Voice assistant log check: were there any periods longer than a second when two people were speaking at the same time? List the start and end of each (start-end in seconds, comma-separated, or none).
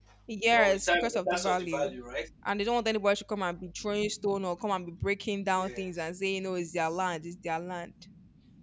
0.6-1.9